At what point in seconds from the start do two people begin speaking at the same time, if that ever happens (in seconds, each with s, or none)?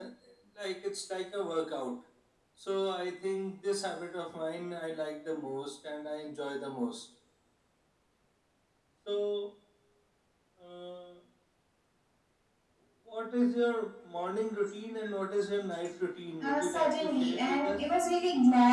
16.4 s